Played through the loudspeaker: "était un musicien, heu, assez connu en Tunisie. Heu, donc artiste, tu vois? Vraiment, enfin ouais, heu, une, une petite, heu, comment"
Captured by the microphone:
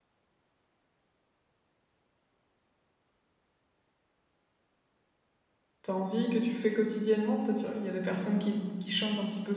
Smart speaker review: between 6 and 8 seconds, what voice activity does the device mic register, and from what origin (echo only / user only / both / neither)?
user only